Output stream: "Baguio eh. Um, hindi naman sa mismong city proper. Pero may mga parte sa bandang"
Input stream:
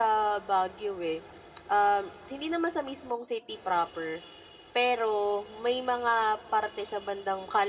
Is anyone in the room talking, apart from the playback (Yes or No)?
No